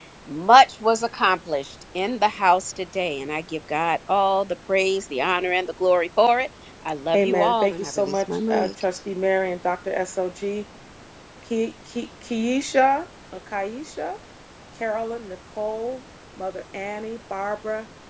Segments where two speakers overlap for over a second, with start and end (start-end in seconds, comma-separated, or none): 7.2-8.7